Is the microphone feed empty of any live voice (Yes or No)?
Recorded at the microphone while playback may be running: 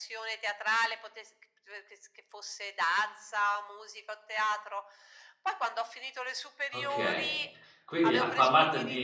No